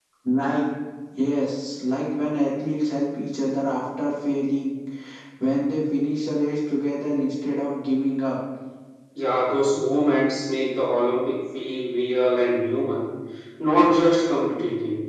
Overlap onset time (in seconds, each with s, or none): none